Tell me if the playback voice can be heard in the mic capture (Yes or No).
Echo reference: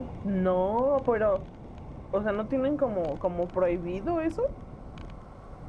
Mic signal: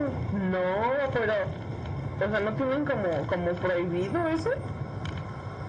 Yes